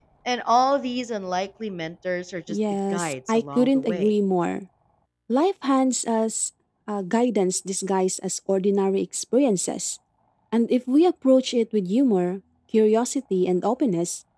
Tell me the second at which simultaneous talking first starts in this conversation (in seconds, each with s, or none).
2.5 s